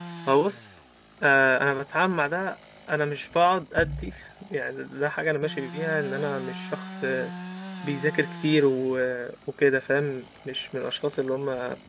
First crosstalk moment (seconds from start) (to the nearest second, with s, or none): none